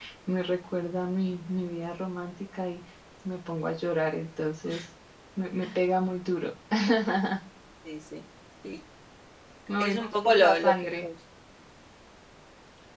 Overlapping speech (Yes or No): Yes